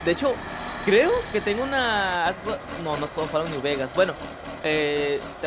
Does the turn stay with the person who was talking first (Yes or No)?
Yes